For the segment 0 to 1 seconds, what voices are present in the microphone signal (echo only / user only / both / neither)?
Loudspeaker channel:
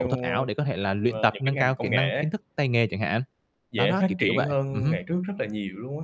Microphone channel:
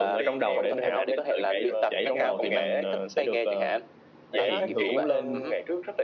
both